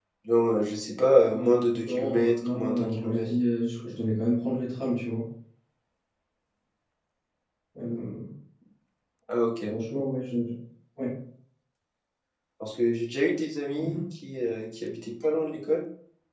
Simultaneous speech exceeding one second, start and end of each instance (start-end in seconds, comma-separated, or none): 1.3-3.3